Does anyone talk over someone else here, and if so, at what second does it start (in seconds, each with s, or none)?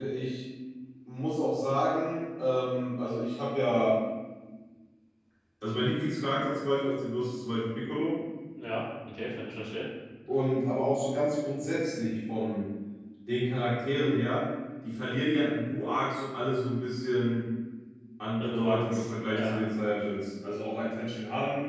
18.4 s